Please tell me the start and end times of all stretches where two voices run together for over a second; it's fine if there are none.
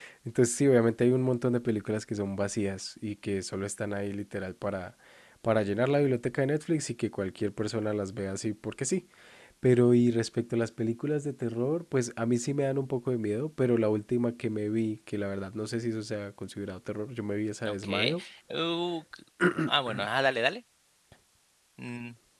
none

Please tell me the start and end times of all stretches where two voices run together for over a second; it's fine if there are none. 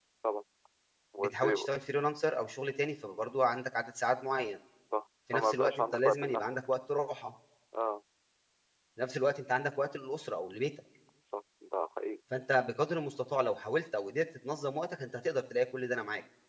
5.3-6.6

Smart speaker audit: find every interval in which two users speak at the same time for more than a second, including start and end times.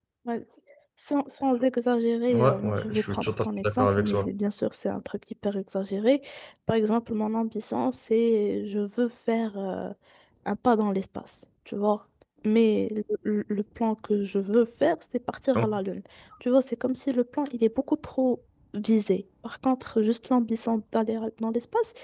2.3-4.3

